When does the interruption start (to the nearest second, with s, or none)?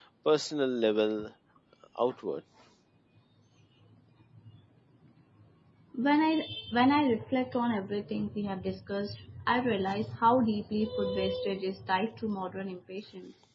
none